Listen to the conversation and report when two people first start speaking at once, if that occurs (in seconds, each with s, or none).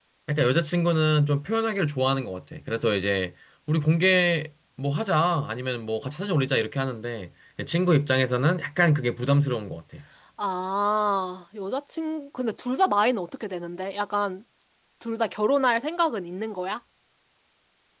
none